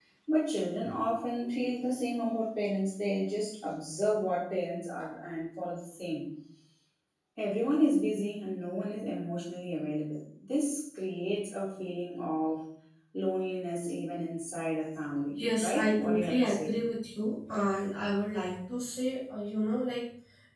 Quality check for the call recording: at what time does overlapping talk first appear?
15 s

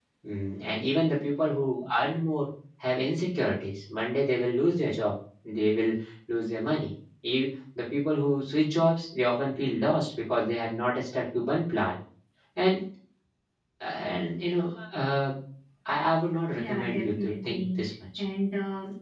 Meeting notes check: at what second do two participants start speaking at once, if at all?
17 s

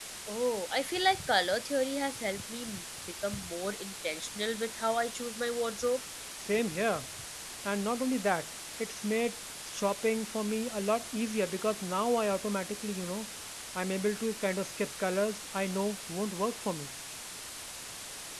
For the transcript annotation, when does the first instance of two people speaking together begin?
none

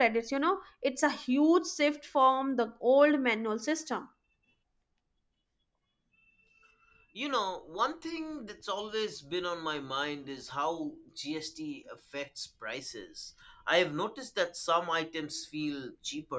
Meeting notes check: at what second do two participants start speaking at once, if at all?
none

